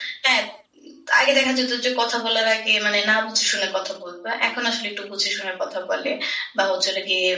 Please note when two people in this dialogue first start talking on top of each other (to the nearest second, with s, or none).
none